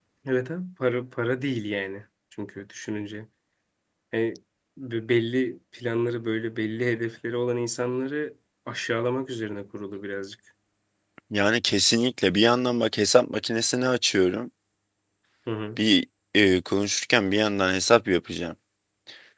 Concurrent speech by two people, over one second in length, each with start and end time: none

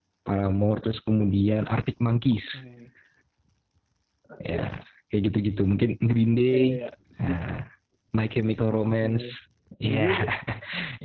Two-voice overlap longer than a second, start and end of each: none

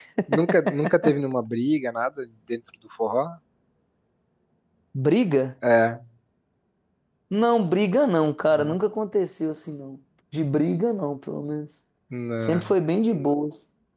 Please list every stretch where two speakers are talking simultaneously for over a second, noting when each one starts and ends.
none

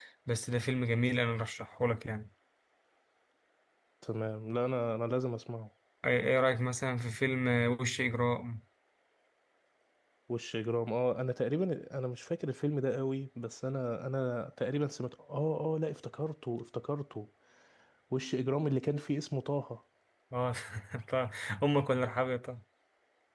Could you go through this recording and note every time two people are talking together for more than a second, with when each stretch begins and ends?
none

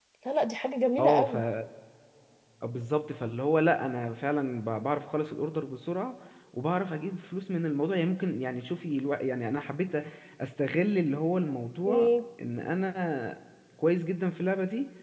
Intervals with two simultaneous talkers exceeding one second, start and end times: none

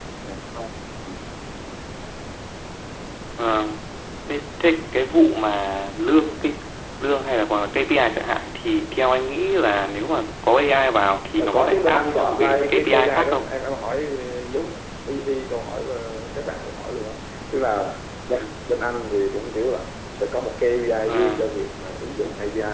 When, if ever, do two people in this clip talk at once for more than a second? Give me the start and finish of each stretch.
11.4-13.4

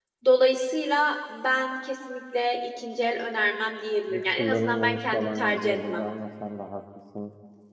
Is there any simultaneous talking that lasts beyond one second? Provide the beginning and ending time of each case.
4.1-6.0

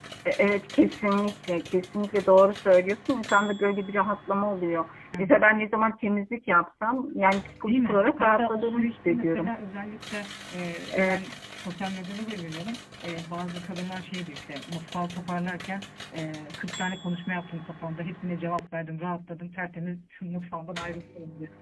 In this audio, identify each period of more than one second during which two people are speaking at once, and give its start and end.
7.6-9.5

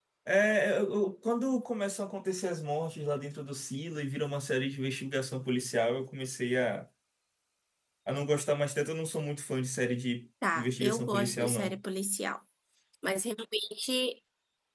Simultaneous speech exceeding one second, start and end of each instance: 10.6-11.8

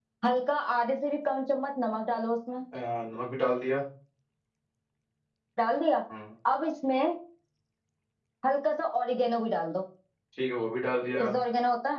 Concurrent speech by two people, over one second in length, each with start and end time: none

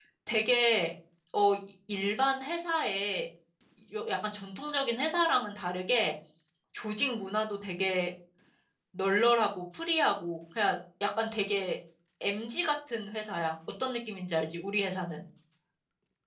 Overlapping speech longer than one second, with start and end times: none

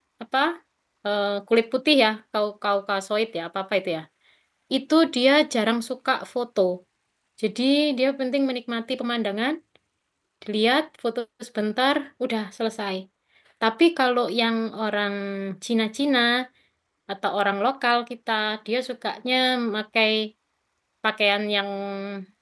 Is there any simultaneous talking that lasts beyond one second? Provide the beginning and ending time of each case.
none

